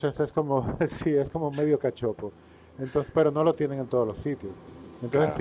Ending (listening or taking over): listening